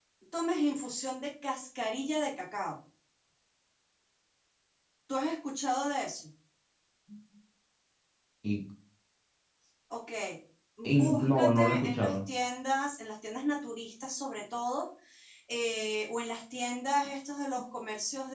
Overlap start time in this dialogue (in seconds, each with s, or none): 10.8 s